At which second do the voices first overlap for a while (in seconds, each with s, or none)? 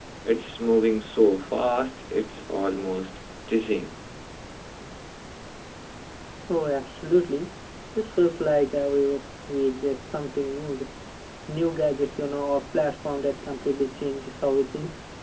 none